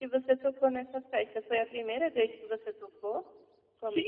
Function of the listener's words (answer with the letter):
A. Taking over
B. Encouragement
A